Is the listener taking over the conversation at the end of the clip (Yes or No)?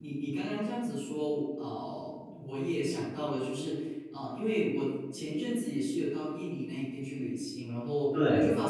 No